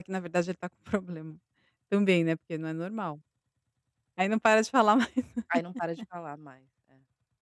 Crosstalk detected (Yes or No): No